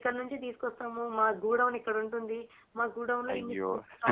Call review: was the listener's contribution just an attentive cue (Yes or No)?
Yes